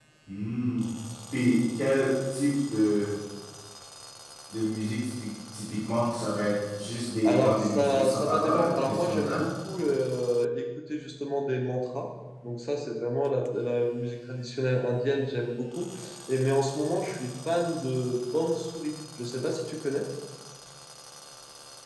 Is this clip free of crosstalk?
No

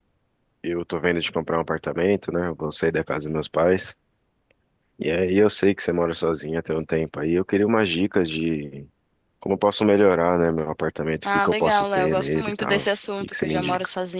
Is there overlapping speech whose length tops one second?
Yes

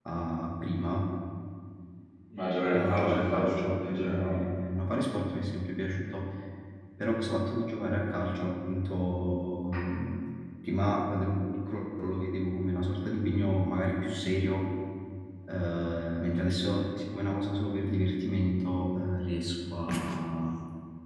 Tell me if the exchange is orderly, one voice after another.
No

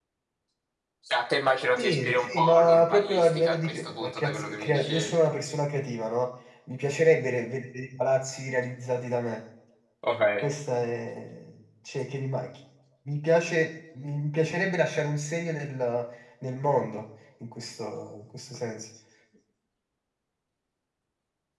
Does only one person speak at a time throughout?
No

